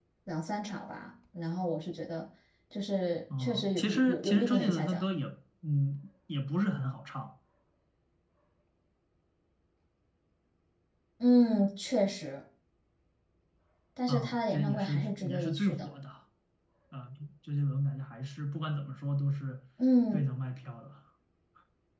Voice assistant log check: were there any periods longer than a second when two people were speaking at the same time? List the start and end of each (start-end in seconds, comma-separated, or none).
3.4-5.0, 14.1-15.9